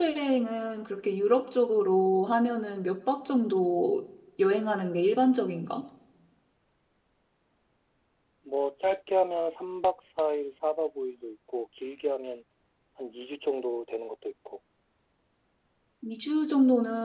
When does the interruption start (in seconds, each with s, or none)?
none